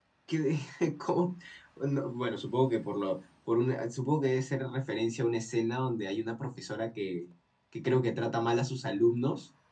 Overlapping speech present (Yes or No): No